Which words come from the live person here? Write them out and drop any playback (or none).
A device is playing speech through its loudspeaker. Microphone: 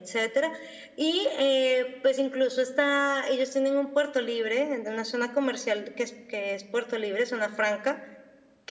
none